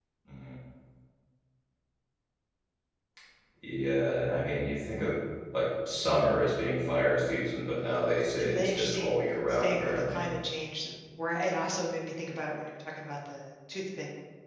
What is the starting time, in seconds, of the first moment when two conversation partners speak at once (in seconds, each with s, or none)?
8.4 s